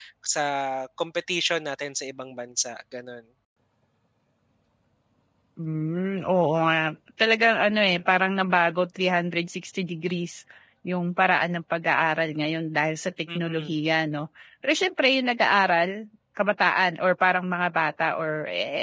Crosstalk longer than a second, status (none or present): none